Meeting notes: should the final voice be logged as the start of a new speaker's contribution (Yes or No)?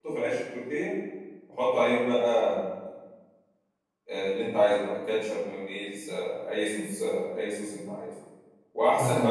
No